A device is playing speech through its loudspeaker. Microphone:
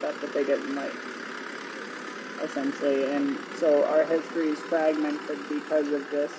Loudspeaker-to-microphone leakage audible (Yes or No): No